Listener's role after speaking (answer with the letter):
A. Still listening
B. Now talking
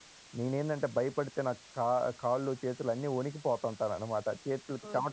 B